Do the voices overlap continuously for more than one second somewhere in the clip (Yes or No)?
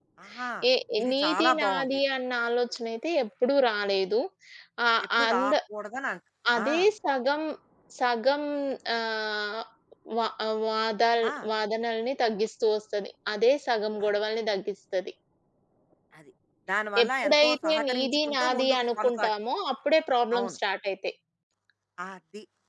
Yes